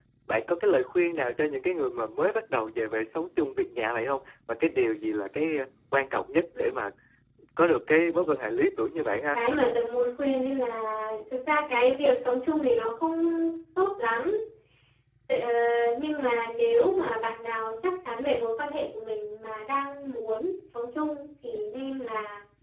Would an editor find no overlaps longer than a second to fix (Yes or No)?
Yes